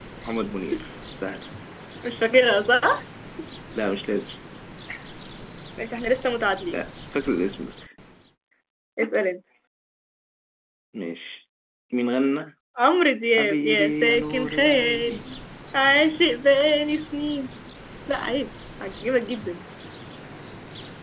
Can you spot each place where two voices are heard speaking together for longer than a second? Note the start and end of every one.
13.4-15.2

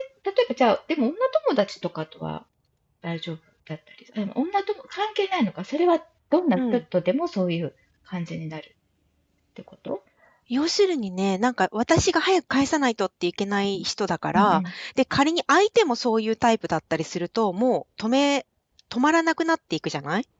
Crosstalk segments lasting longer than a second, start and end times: none

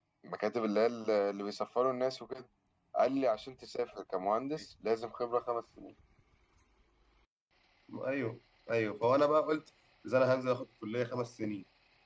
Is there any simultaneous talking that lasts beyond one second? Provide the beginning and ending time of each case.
none

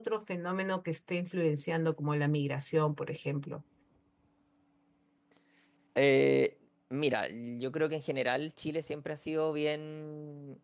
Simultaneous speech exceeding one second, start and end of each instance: none

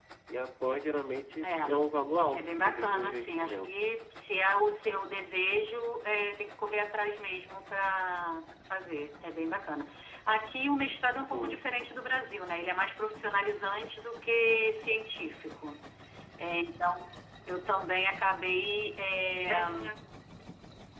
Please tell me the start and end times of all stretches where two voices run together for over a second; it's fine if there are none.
2.3-3.7

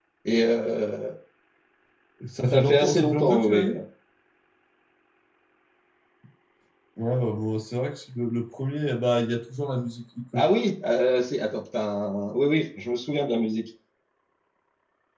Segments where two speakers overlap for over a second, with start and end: 2.5-3.7

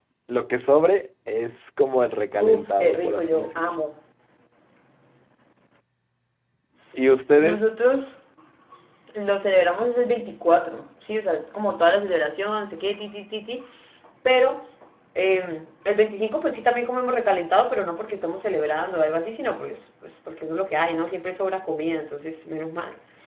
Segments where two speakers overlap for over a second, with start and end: 2.4-3.7

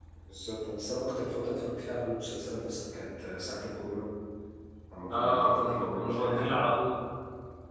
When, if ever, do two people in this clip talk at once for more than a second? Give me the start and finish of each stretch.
5.1-6.6

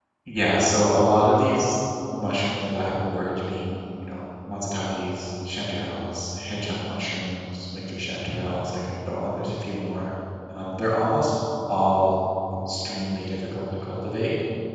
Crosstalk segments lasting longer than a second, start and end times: none

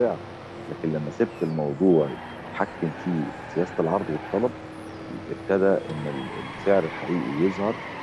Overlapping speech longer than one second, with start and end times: none

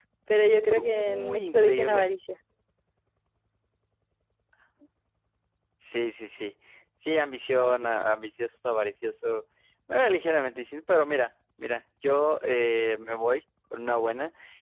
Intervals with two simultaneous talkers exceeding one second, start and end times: 0.7-2.1

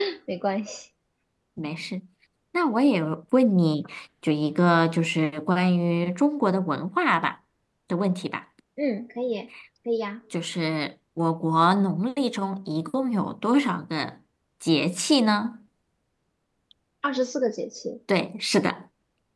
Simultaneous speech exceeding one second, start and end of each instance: none

